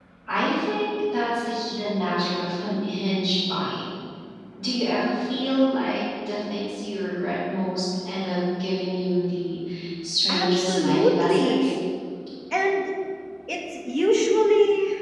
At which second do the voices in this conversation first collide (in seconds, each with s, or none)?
10.3 s